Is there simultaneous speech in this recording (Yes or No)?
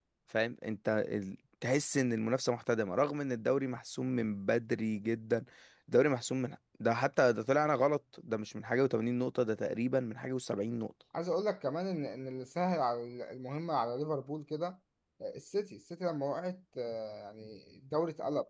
No